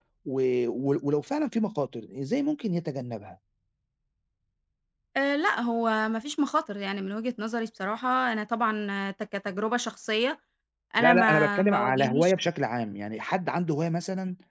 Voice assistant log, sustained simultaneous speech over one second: present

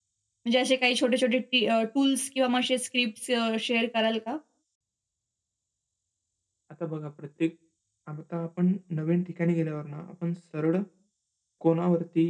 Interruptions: none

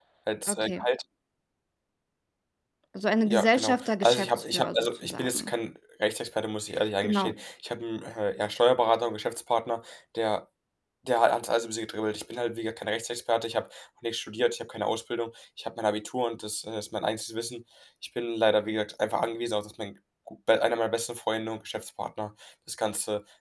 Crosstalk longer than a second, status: present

